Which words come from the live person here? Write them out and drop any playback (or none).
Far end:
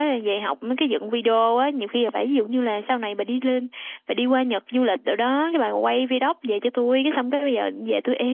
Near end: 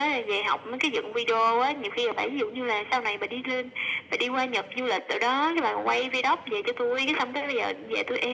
none